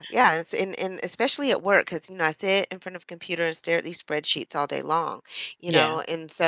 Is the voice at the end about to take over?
No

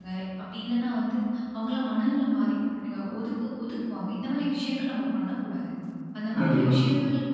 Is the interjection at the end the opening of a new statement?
No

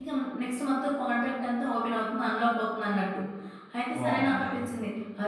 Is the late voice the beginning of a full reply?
No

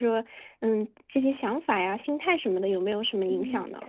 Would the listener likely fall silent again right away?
No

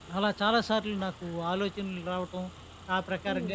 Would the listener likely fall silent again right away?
Yes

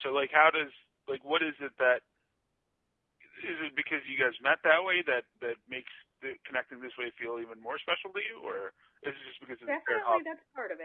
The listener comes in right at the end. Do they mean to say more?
Yes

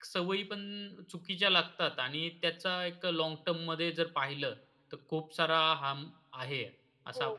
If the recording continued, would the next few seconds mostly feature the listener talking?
Yes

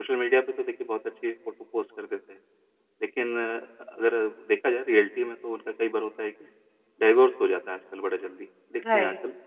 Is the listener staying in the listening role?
Yes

